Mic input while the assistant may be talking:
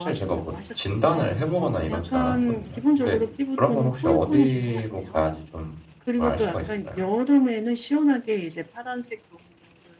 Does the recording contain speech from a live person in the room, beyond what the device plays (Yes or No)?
Yes